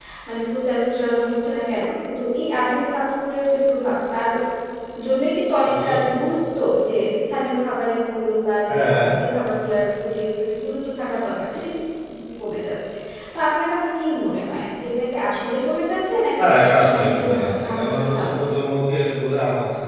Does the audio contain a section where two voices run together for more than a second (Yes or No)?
Yes